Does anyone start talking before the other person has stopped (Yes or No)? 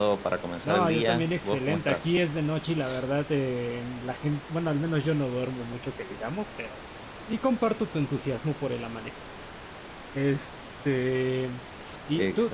Yes